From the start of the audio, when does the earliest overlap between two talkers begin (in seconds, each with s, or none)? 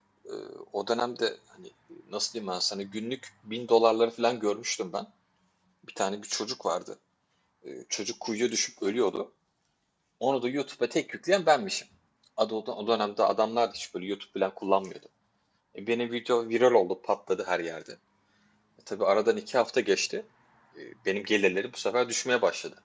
none